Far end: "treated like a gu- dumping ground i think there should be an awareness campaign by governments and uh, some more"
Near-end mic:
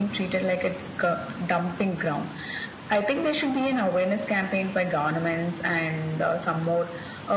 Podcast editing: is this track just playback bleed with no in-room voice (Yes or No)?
Yes